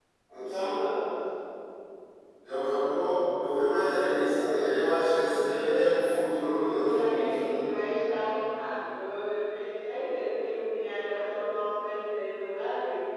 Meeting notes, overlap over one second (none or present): present